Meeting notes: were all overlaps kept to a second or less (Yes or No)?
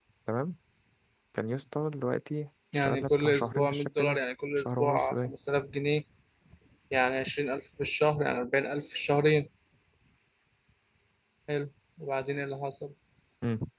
No